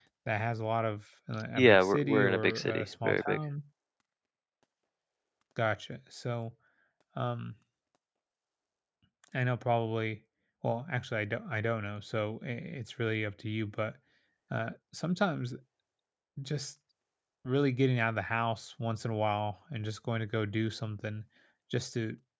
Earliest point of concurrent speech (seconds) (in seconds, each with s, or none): 1.6 s